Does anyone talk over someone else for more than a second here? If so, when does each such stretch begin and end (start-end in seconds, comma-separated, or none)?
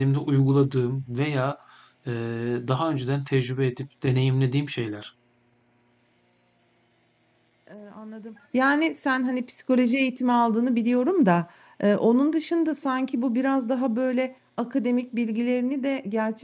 none